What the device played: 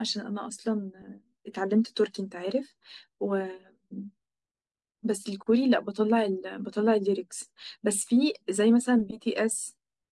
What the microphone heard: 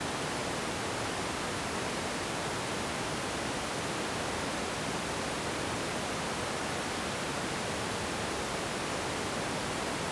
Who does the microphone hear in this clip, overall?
neither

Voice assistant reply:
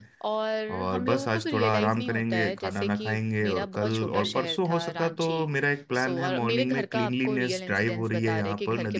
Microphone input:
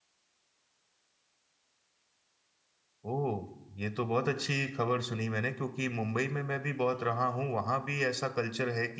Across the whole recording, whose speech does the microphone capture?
user only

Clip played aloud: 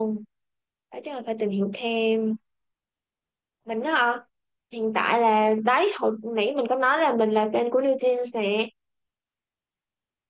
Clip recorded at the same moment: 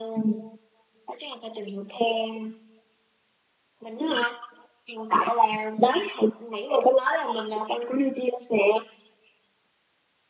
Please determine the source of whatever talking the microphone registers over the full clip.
echo only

